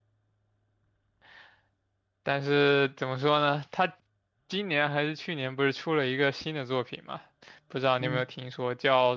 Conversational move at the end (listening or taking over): listening